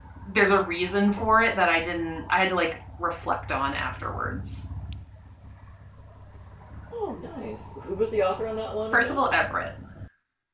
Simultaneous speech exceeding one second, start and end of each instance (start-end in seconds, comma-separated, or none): none